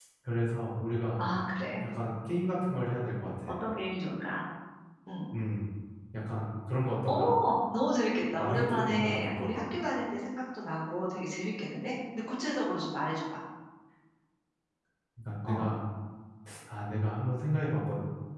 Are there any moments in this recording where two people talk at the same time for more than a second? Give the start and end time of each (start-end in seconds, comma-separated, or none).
8.4-9.6